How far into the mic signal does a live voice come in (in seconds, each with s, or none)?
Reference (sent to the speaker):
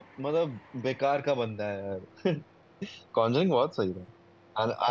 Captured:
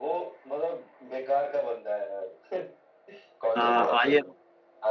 3.6 s